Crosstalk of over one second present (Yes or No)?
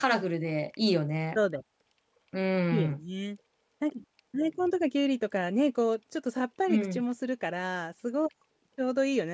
No